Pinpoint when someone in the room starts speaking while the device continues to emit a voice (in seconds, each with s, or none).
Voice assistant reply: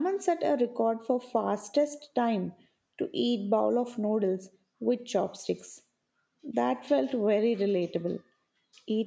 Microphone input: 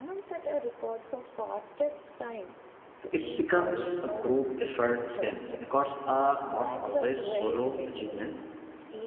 3.1 s